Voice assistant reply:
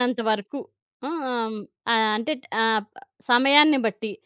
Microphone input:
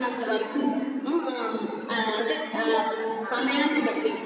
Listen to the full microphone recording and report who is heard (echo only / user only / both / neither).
both